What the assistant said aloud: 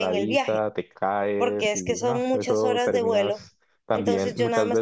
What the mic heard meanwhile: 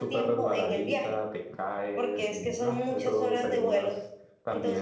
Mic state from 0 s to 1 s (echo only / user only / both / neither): echo only